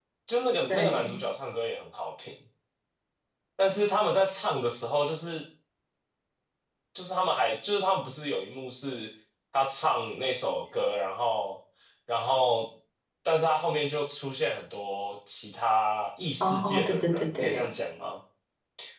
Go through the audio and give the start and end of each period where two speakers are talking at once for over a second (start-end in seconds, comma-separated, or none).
16.4-17.7